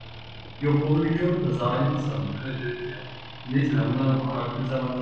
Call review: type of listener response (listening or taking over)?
listening